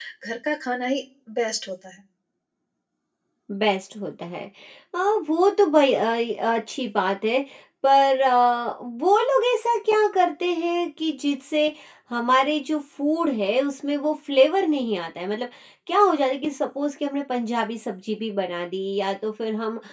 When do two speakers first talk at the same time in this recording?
none

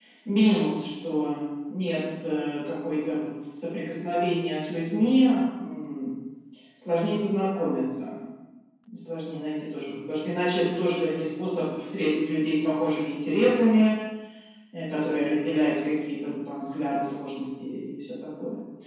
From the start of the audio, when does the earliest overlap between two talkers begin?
none

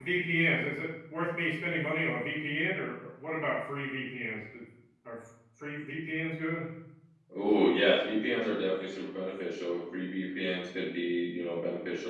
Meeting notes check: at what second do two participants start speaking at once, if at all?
none

